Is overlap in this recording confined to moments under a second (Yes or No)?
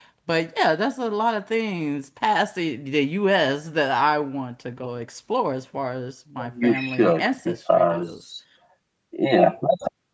No